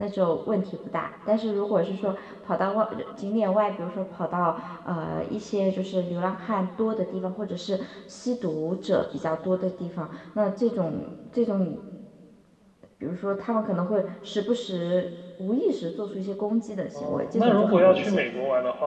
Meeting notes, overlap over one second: present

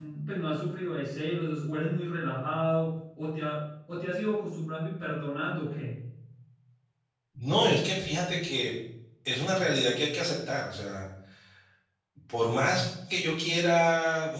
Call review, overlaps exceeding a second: none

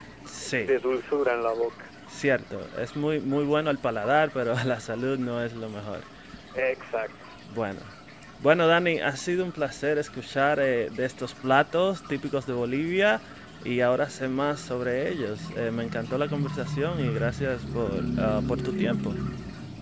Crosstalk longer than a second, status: none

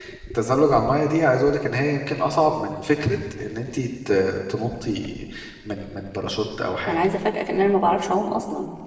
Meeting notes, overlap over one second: none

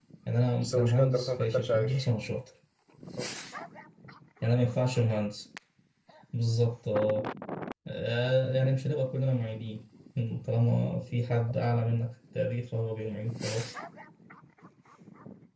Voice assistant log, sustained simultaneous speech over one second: present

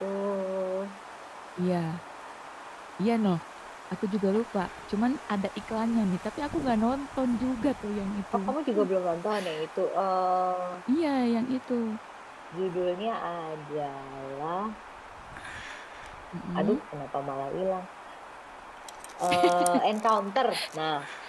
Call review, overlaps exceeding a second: none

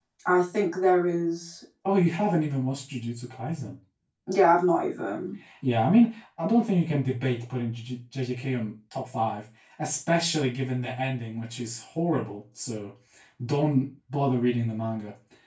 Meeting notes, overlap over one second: none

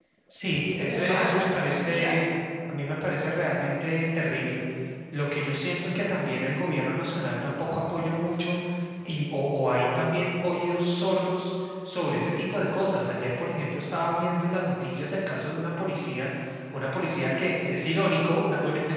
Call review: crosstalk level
present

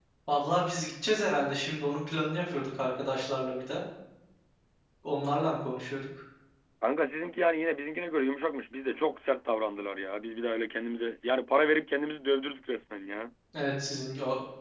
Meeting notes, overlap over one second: none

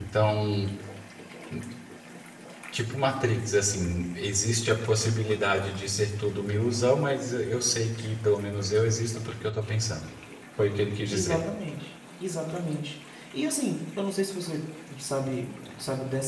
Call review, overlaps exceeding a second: none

